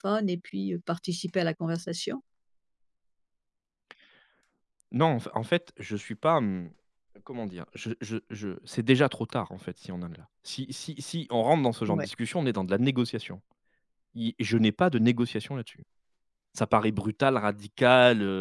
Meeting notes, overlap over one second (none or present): none